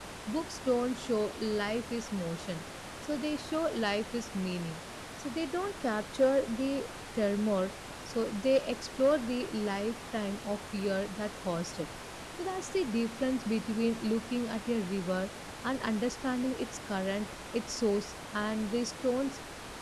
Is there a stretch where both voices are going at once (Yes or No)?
No